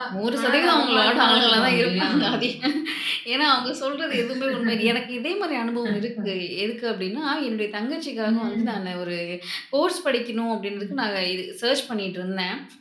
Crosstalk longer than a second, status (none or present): present